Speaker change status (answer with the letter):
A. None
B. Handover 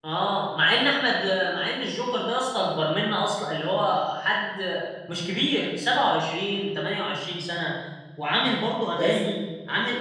A